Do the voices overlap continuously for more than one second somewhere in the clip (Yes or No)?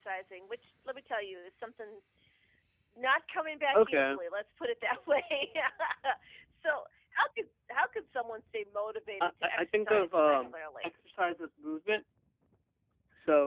Yes